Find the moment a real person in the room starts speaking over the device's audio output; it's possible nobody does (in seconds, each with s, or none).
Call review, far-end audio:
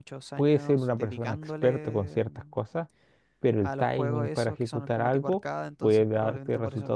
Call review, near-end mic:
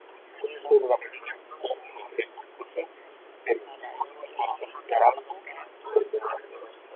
none